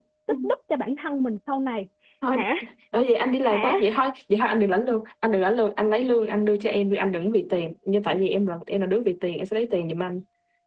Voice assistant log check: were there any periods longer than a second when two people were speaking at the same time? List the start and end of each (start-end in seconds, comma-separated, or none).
none